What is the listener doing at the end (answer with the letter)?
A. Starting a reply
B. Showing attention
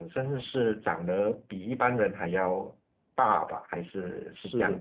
A